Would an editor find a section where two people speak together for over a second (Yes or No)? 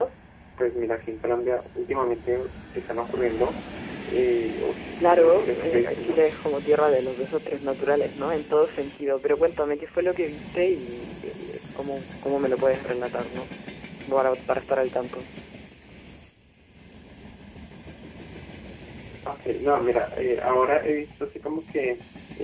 Yes